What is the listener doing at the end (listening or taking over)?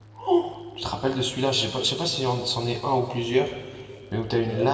listening